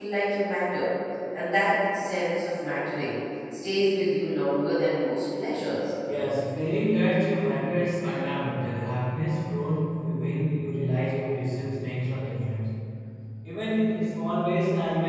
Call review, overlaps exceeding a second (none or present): none